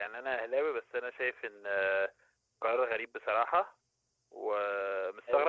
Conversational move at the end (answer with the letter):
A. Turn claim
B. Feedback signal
B